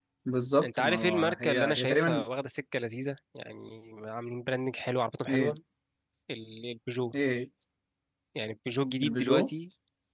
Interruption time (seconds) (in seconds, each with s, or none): 0.6 s